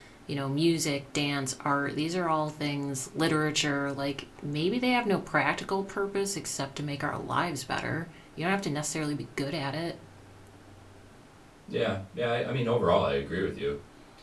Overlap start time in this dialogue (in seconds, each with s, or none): none